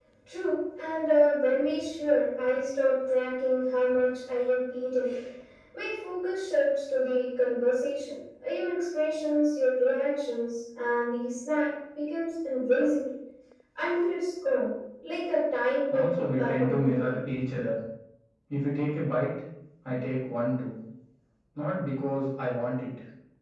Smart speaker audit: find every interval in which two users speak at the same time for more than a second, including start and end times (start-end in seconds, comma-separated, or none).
15.9-17.1